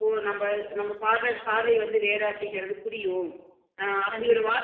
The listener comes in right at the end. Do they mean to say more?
No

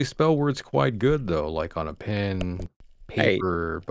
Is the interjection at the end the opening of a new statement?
No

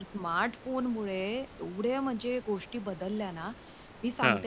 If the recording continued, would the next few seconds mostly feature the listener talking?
No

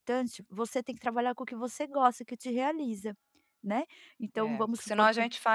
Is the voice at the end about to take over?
Yes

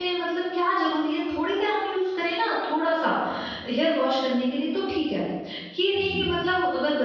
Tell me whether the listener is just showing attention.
Yes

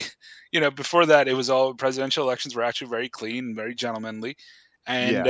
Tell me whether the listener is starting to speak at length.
No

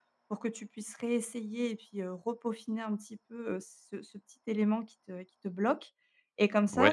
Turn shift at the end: No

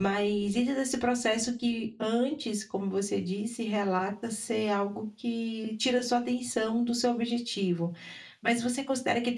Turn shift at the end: No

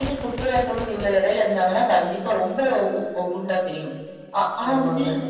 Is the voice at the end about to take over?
No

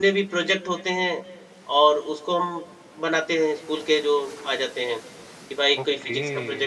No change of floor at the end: No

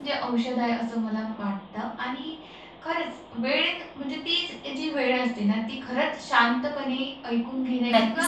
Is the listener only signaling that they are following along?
No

